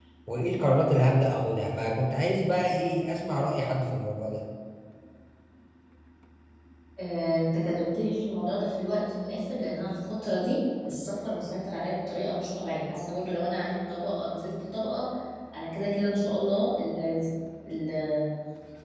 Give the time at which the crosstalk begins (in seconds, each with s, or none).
none